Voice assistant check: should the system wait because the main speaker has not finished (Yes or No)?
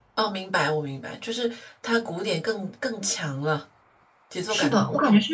No